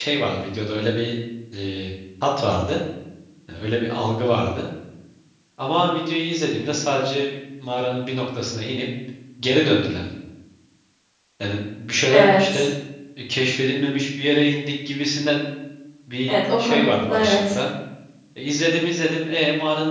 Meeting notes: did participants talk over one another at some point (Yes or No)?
Yes